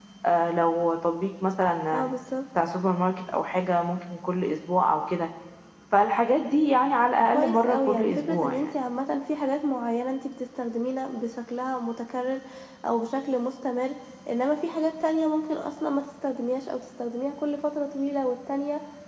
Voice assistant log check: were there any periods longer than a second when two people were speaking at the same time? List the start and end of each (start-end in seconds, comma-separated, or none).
7.3-8.7